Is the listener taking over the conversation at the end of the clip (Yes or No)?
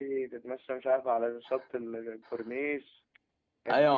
Yes